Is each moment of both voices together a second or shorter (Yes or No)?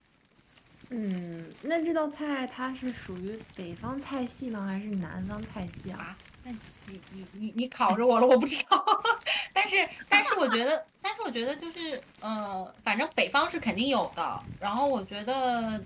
Yes